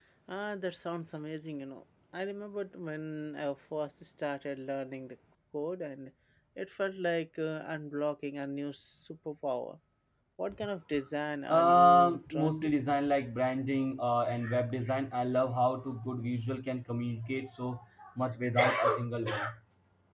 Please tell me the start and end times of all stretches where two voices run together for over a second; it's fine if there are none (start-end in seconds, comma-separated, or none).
11.5-12.7